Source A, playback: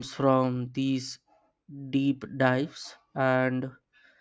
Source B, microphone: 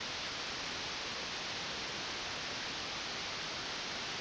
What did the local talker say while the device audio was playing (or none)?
none